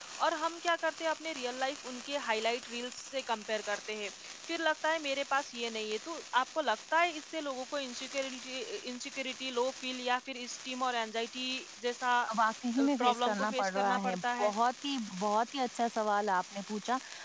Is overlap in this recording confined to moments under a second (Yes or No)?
No